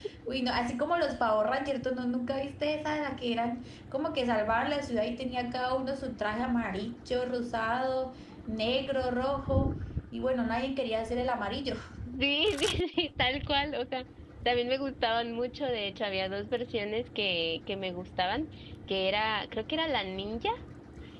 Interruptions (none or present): none